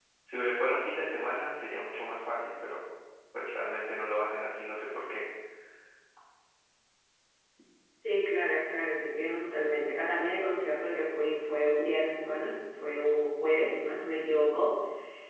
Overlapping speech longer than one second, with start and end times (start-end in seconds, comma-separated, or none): none